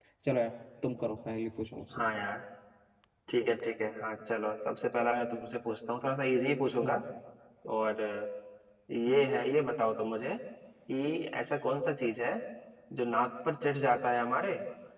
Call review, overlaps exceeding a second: none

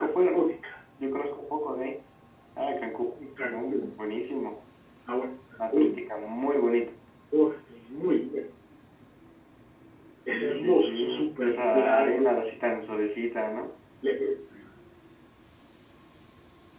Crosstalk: present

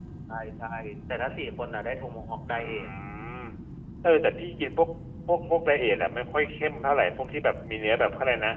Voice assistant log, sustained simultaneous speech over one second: none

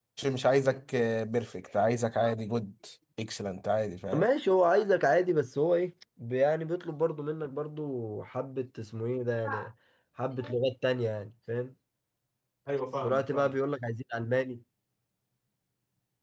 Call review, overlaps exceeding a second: none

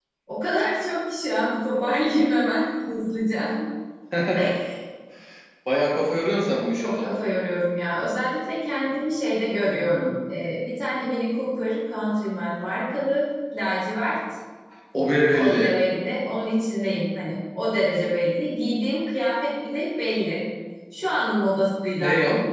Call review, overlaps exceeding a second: none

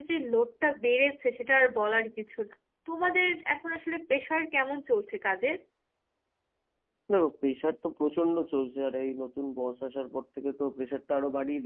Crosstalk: none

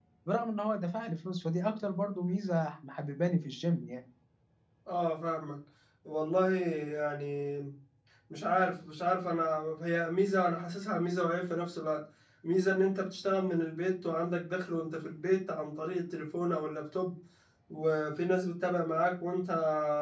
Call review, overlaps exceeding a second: none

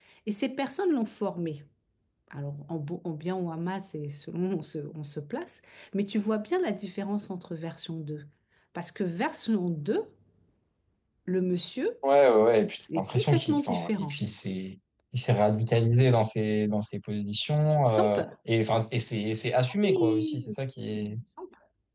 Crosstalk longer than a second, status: present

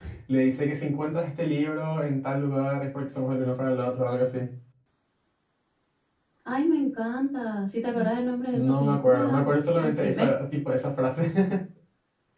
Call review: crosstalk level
present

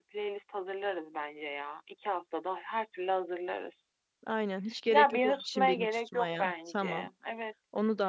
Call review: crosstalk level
present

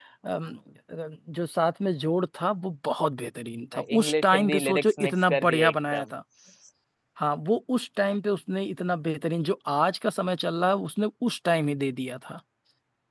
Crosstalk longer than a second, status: present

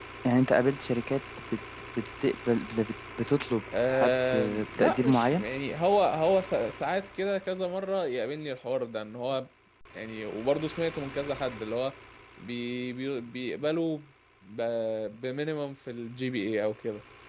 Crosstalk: present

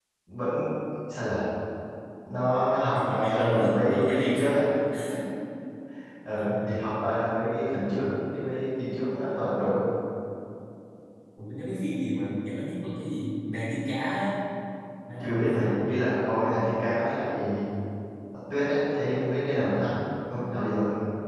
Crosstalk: present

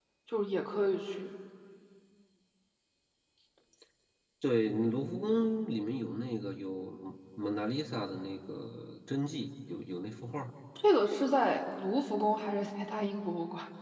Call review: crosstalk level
none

